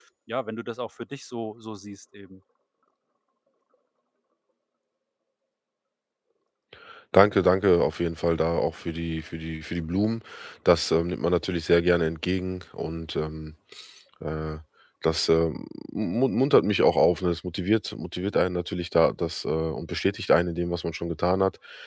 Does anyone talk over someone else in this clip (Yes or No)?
No